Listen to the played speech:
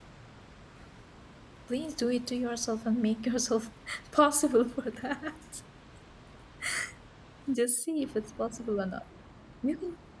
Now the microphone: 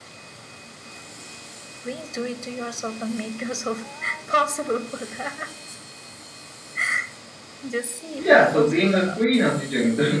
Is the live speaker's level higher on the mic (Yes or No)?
Yes